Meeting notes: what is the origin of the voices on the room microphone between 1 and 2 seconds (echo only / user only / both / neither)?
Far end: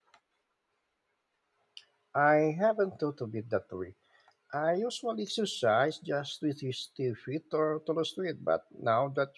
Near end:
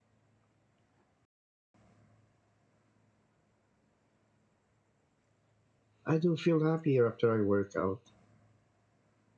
neither